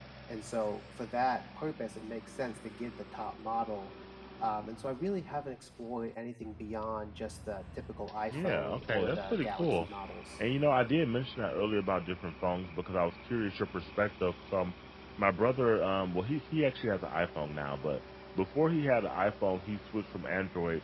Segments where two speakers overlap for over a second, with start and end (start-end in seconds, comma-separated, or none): 8.3-9.9